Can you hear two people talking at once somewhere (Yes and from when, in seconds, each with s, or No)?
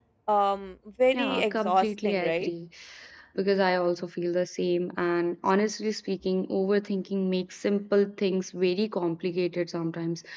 Yes, from 1.1 s